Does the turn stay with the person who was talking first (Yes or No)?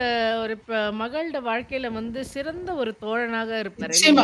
No